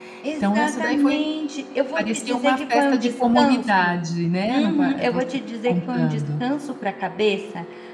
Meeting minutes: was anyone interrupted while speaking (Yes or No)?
Yes